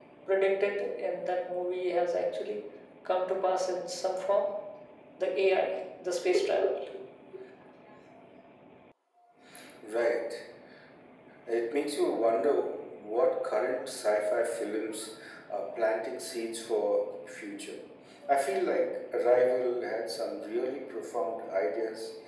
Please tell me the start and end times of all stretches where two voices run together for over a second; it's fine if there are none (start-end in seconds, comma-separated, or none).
none